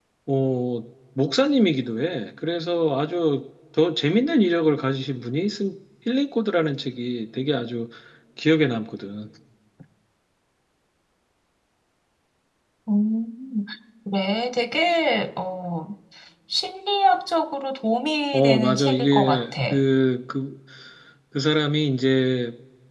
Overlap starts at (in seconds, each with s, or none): 18.3 s